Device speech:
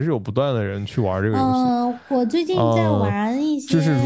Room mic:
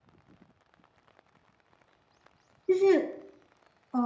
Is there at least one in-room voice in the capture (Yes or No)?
Yes